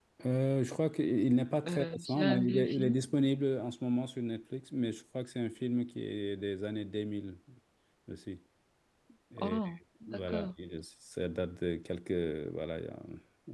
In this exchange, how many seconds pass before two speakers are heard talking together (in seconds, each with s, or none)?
1.7 s